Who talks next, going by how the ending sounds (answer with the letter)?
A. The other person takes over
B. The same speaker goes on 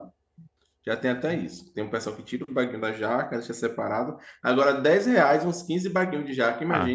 A